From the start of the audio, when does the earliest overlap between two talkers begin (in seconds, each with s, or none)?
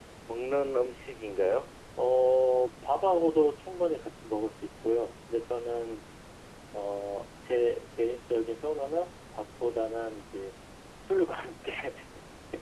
none